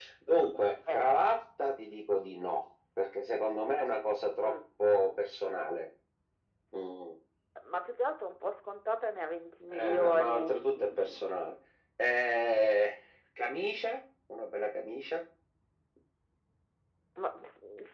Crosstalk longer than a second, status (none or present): present